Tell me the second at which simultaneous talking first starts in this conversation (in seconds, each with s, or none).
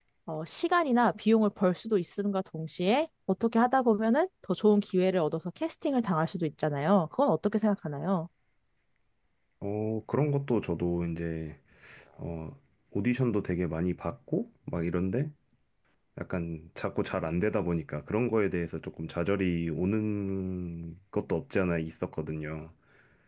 none